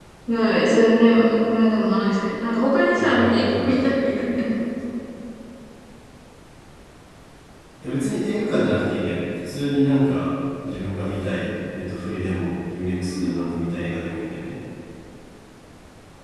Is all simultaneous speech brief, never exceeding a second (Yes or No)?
No